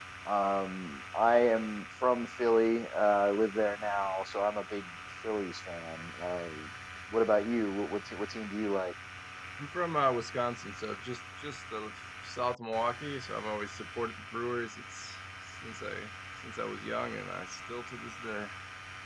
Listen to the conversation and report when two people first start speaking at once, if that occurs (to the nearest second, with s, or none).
none